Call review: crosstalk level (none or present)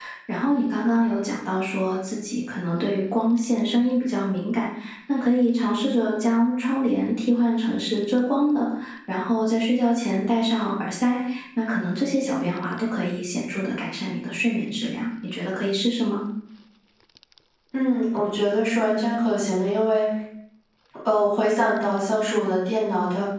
none